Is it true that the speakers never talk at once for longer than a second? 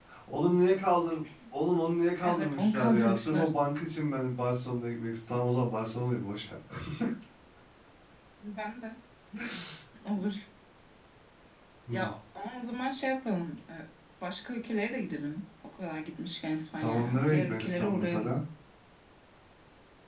No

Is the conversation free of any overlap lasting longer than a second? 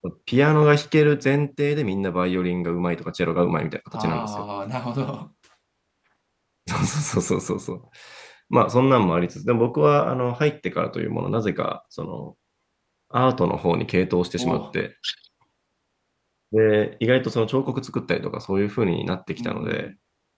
Yes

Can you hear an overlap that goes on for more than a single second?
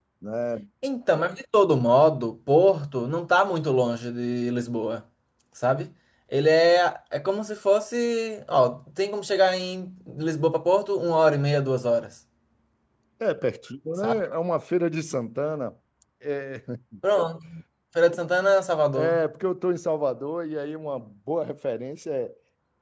No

